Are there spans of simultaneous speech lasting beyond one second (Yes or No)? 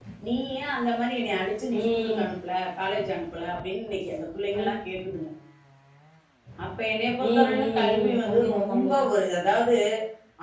Yes